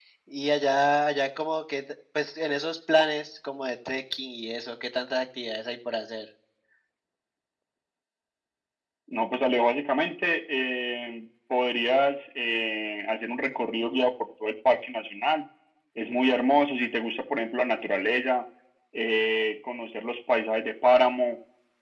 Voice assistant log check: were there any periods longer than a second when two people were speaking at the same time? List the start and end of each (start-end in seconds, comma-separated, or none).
none